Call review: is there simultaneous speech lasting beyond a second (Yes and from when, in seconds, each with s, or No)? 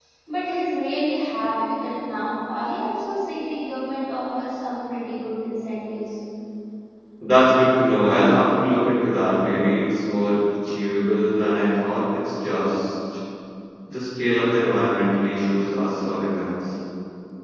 No